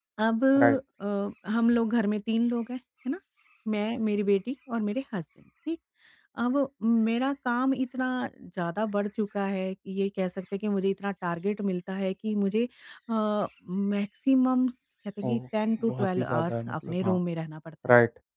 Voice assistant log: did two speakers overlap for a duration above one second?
Yes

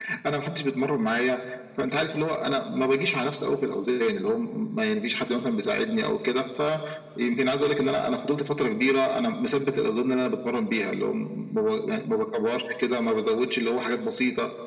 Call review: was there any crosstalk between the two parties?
No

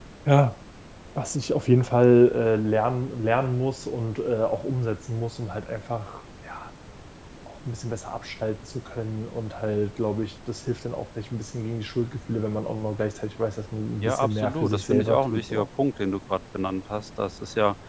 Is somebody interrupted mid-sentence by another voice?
Yes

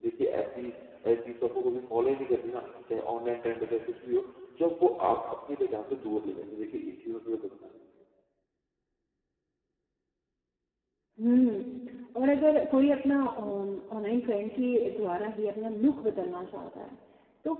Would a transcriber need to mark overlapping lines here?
No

